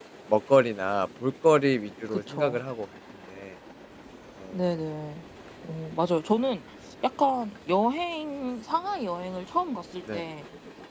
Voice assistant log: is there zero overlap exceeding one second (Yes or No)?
Yes